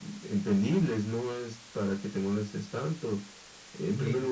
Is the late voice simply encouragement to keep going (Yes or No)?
Yes